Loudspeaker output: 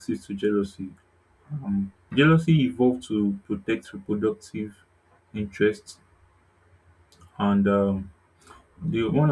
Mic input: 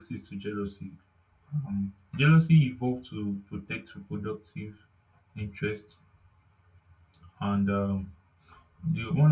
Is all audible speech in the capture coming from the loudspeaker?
Yes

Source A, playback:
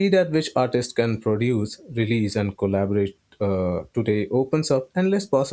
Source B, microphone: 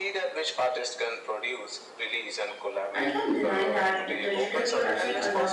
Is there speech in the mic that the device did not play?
Yes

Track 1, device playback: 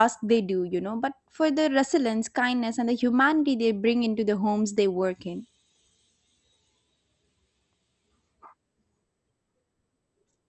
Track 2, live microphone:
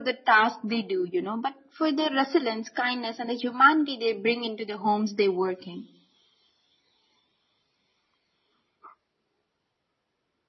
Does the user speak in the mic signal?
No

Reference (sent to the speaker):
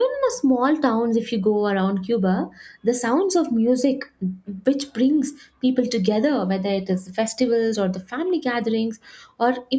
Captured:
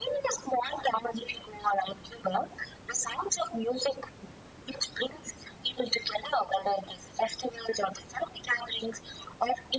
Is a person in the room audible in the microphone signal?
No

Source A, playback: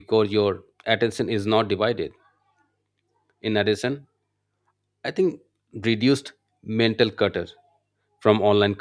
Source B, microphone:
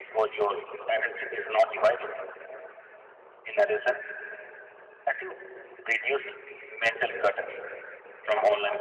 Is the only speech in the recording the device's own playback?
Yes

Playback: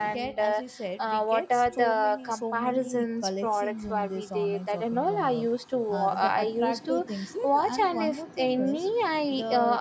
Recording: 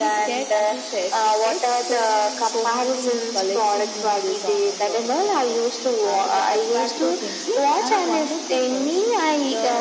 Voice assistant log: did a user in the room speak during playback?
No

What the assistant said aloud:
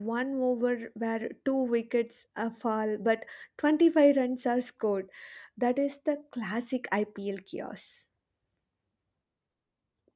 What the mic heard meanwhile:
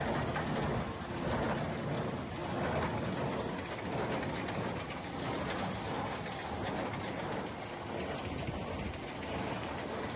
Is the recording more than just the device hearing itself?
No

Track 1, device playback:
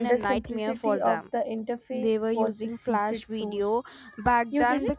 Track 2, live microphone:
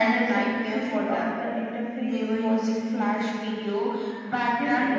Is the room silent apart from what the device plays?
Yes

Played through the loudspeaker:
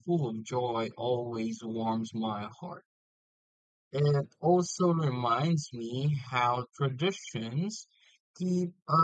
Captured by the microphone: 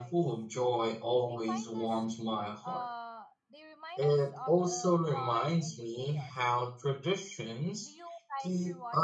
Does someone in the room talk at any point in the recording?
Yes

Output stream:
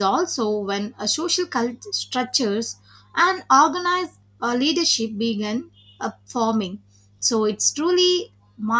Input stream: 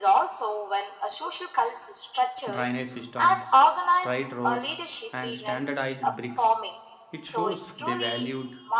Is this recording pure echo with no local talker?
No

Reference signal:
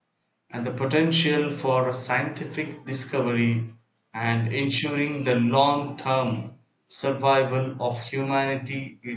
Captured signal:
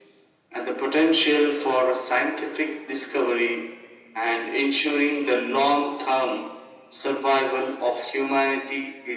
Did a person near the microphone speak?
No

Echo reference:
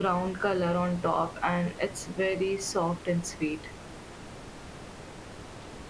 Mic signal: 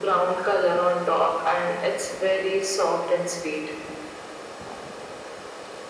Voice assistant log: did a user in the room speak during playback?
No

